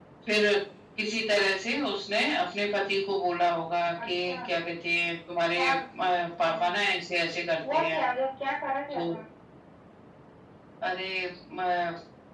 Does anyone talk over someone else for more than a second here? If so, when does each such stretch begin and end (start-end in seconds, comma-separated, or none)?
none